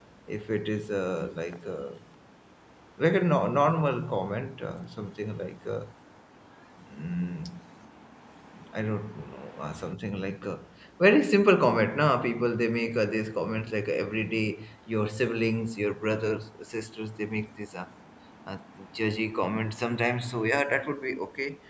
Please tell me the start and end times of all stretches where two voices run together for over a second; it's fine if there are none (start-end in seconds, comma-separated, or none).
none